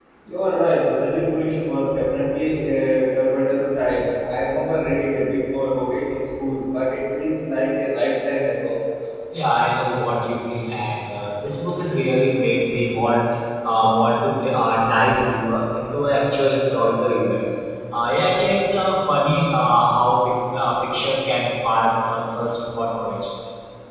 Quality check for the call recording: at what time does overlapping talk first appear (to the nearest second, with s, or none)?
none